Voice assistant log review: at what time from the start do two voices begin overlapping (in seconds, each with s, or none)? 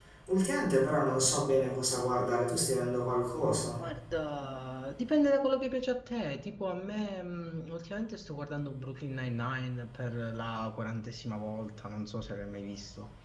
none